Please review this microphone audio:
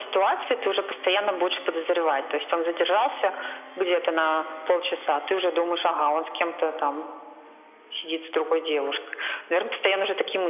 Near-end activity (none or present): none